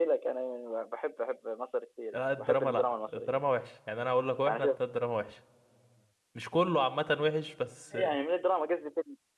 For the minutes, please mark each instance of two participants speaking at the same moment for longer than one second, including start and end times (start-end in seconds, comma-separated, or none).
2.1-3.4